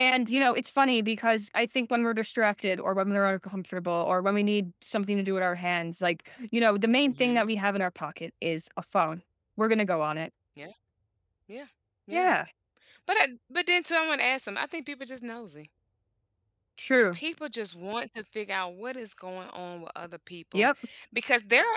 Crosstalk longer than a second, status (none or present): none